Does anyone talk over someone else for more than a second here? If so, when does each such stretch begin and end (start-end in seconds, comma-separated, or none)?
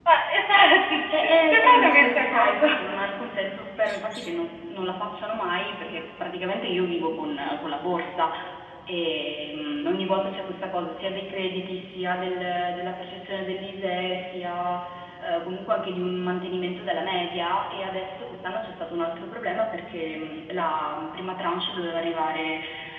1.5-2.8